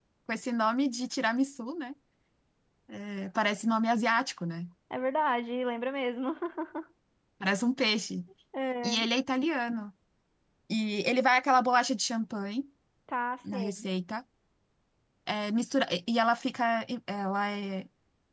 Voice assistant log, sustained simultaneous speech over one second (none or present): none